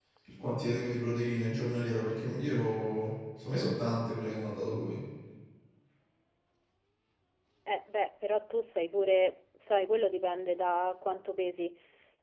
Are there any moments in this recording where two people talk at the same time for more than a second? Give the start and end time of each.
none

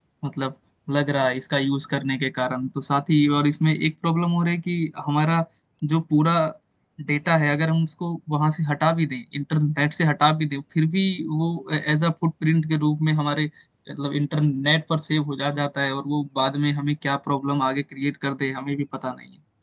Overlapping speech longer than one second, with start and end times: none

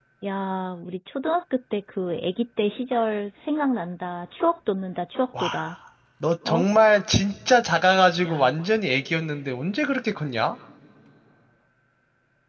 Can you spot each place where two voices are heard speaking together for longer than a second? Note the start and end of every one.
none

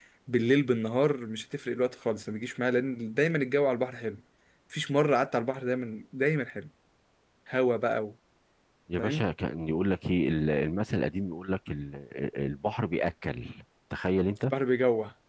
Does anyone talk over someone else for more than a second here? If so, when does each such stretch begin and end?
none

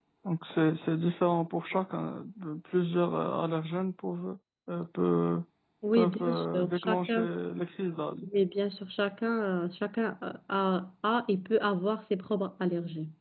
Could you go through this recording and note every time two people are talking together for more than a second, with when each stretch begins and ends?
5.9-7.3

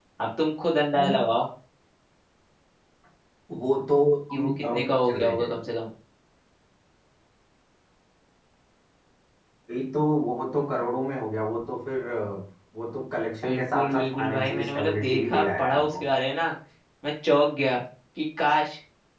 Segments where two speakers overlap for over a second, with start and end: 4.3-5.5, 13.4-16.0

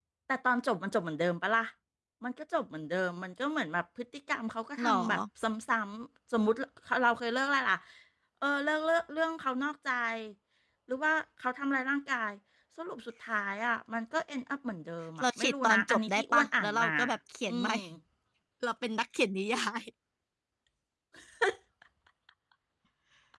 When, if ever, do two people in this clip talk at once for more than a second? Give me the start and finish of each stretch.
15.2-16.9

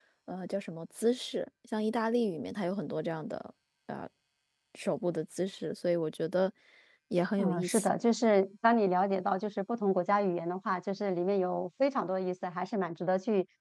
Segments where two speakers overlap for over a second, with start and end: none

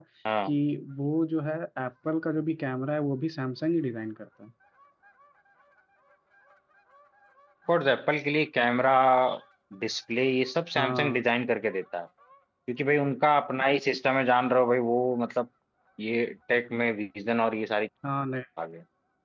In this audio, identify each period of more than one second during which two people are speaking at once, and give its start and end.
none

